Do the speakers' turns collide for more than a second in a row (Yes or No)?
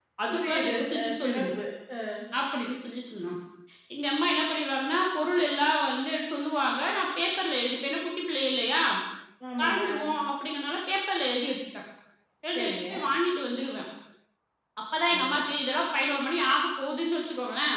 Yes